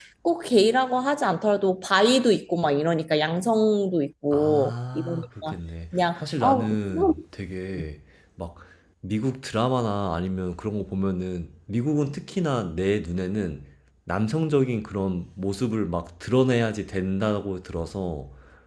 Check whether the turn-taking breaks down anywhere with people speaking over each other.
Yes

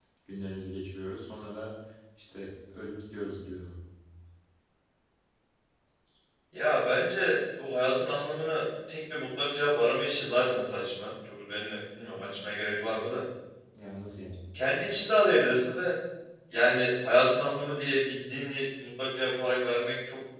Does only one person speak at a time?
Yes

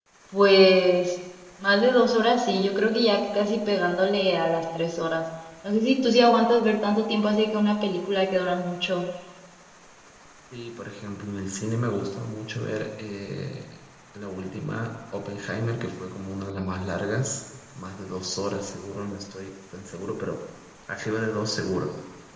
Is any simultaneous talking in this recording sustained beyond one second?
No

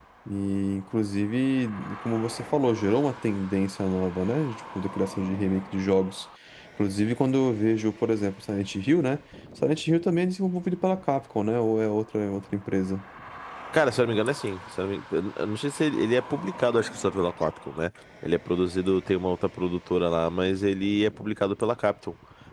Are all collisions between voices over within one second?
Yes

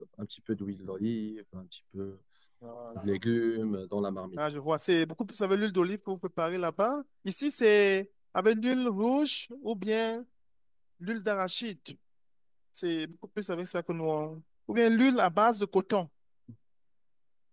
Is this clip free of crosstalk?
Yes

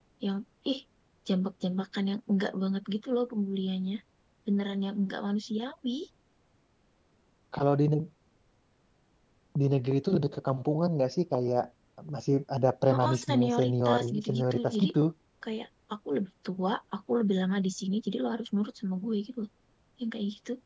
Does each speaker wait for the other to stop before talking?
No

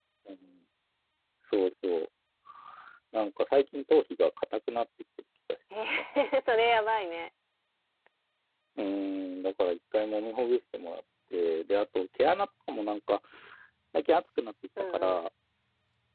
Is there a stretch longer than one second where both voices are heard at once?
No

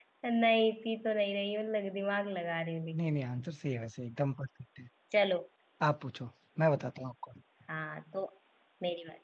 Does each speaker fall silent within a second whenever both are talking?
Yes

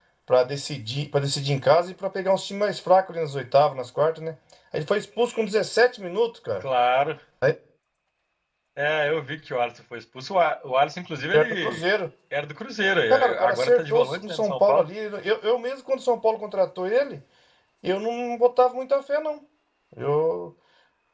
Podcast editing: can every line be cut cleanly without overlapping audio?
No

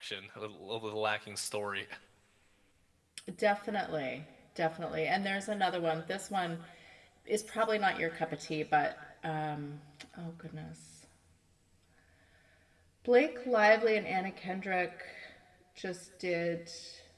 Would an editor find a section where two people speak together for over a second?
No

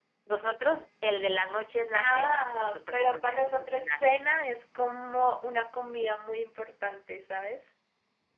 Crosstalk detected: Yes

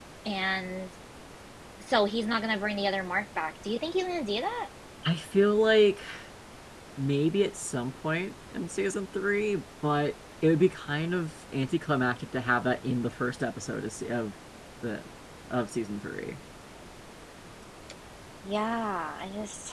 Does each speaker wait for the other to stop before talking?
Yes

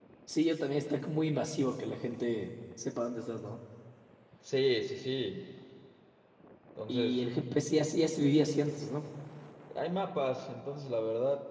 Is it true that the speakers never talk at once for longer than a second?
Yes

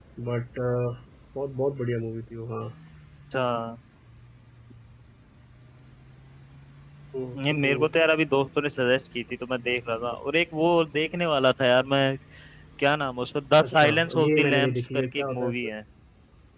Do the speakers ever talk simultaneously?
Yes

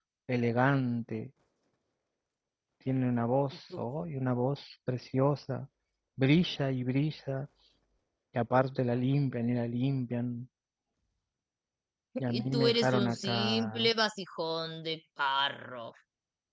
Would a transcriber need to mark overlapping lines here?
Yes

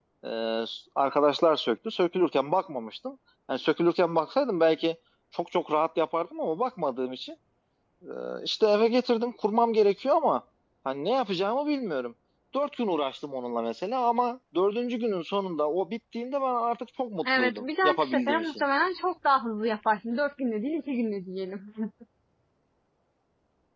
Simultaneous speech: Yes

